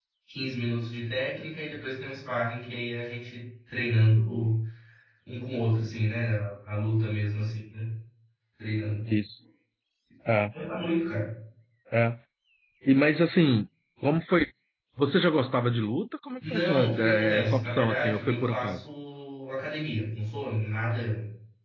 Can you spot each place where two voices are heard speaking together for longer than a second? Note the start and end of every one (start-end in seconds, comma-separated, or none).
16.5-18.8